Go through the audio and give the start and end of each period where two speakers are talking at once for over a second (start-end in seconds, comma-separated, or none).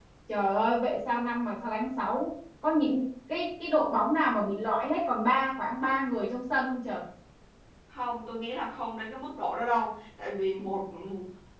none